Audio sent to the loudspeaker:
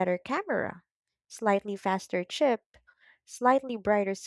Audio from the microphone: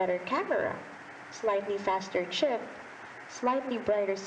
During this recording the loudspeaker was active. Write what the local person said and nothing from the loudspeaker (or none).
none